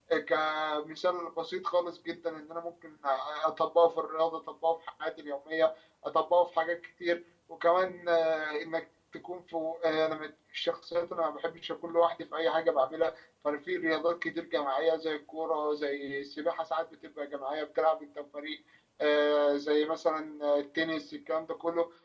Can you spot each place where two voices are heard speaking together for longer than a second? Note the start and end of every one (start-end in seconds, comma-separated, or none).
none